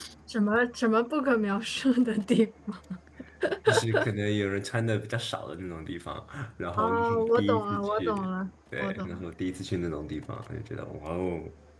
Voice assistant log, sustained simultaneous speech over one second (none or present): present